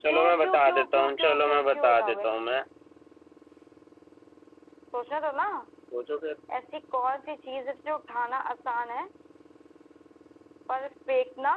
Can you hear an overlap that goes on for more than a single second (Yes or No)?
Yes